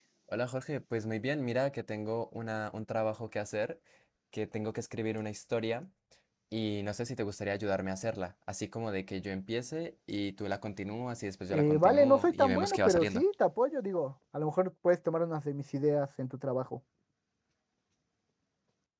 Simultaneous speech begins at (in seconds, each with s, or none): 11.5 s